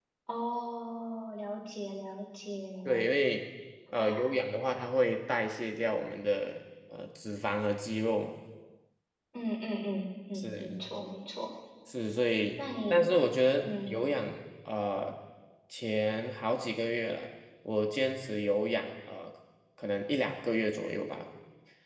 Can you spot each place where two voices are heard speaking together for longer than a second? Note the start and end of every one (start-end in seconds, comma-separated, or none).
none